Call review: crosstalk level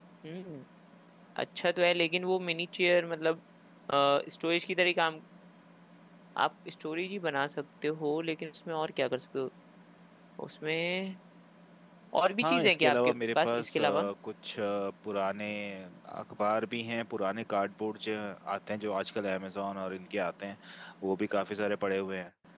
present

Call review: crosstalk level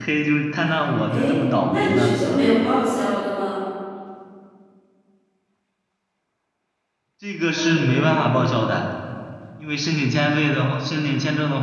present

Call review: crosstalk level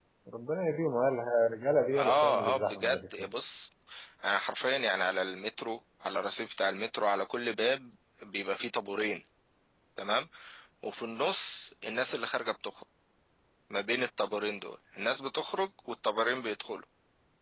present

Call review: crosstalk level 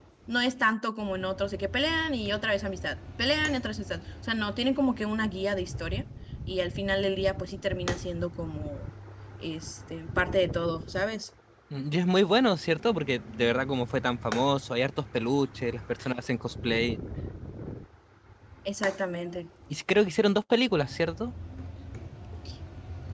none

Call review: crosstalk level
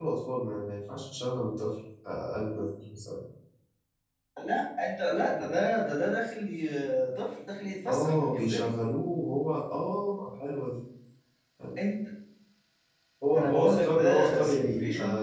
present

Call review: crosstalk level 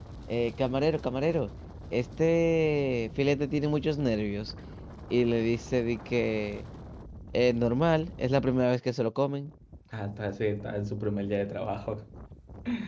none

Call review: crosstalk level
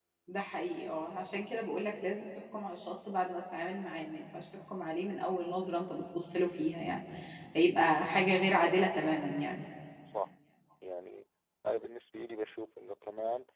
none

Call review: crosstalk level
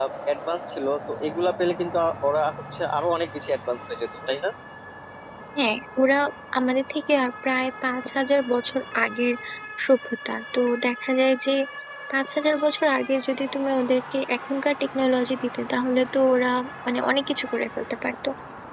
none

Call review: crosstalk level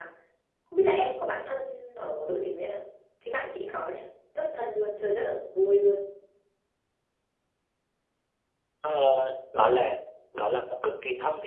none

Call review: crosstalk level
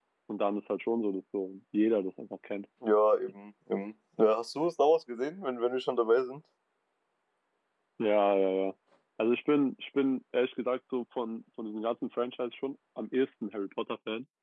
none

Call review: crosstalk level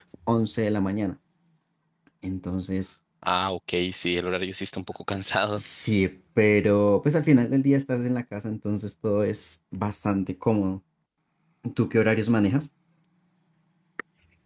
none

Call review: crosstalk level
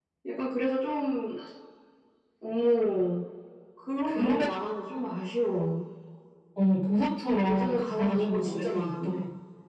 present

